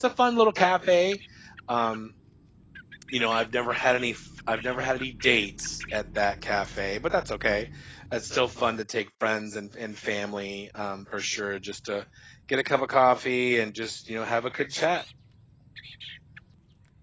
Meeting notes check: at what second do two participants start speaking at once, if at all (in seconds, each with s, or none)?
none